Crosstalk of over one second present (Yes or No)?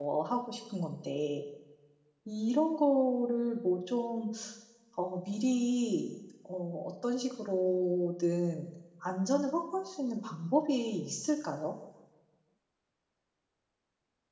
No